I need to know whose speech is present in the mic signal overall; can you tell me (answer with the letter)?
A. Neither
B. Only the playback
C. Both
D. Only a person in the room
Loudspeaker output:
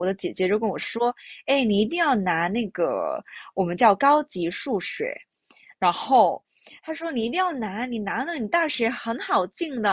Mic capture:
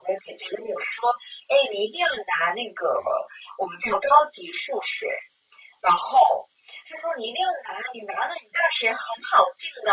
B